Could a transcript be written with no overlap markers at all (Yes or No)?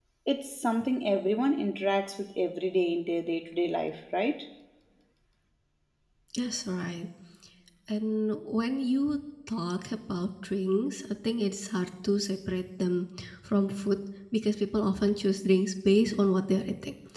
Yes